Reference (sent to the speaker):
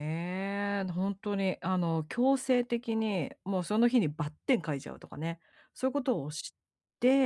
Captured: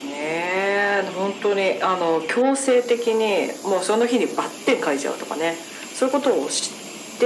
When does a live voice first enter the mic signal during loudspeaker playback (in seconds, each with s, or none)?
none